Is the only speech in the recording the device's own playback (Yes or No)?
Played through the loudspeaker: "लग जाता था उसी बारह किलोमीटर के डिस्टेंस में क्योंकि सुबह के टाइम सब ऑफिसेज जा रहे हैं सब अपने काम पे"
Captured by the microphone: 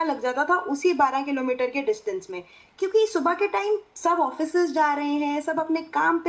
Yes